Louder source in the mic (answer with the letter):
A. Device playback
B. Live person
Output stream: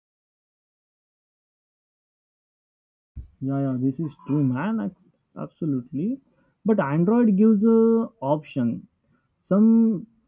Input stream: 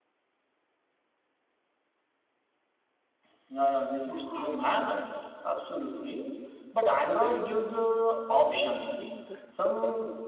A